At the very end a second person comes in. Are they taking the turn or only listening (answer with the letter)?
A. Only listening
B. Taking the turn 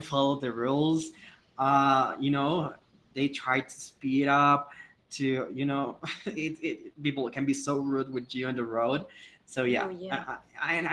A